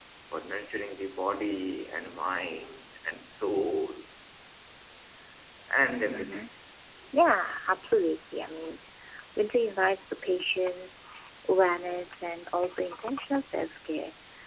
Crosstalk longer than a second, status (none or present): none